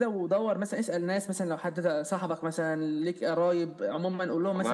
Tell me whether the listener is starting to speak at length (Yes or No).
Yes